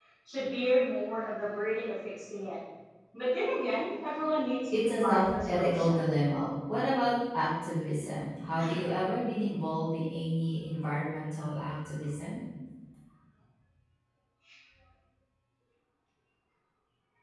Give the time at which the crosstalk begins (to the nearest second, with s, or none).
5 s